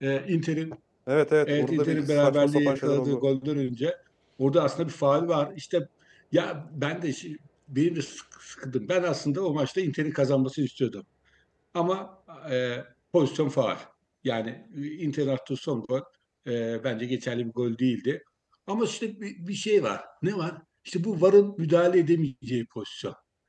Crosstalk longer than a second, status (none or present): present